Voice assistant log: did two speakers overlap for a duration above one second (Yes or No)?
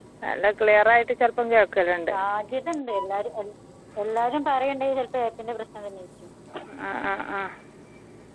No